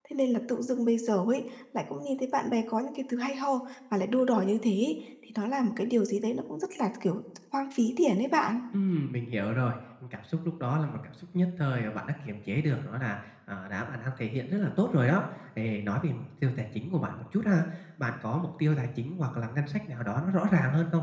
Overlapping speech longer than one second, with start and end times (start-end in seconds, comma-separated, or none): none